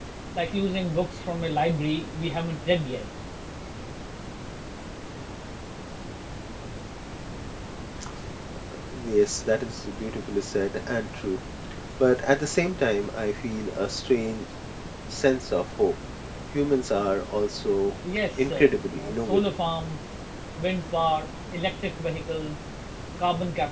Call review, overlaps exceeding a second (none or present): present